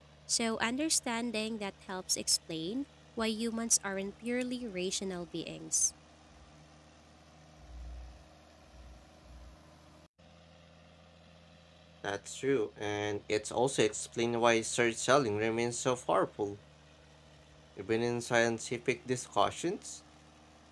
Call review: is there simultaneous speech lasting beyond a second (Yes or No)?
No